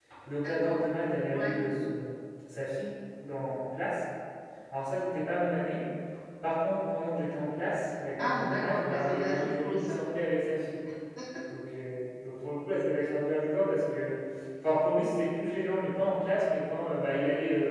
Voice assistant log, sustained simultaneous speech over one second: present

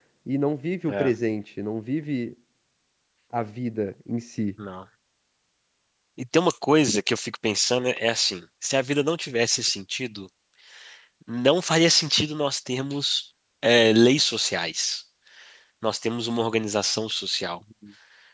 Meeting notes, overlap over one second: none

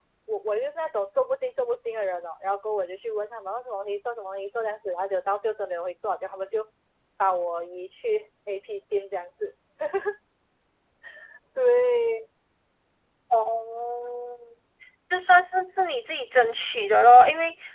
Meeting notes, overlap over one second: none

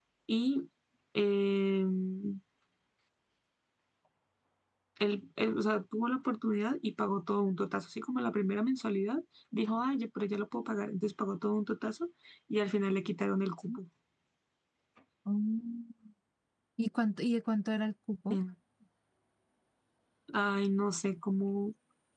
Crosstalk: none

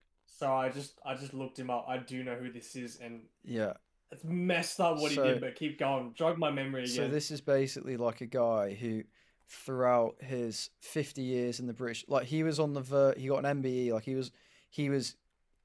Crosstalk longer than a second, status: none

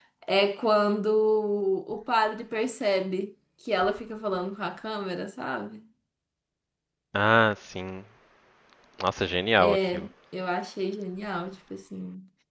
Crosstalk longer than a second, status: none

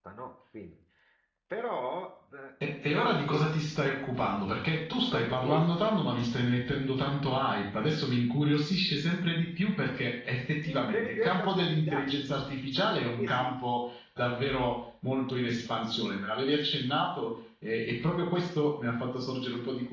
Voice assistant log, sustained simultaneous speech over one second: present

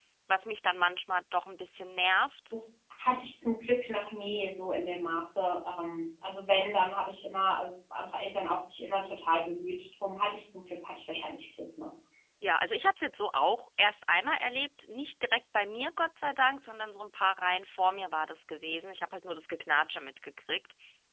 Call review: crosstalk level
none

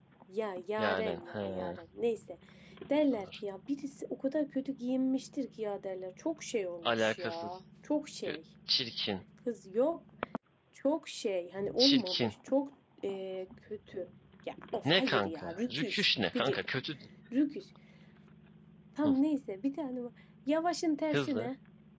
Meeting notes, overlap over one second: present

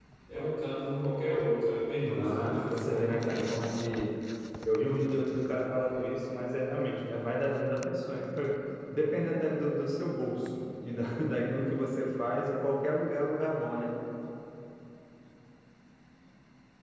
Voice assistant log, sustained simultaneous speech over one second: present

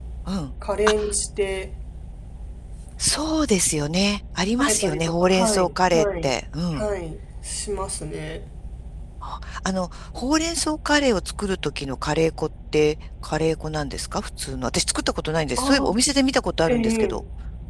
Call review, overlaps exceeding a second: present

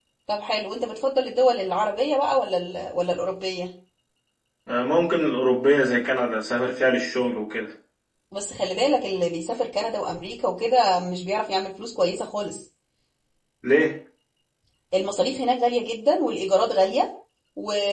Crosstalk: none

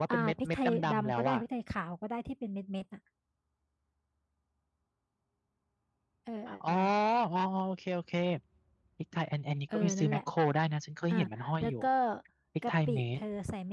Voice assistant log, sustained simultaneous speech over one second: present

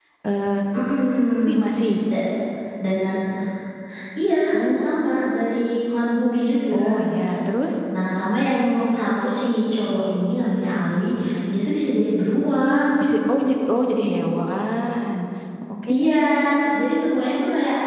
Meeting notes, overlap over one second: none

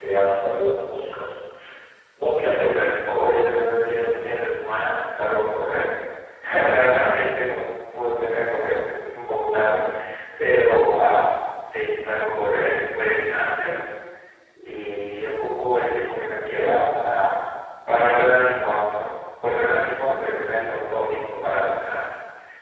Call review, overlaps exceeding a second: none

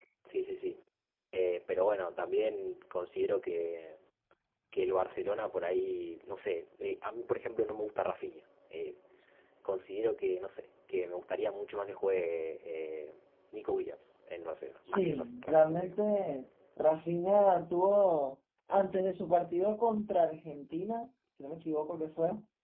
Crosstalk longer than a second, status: present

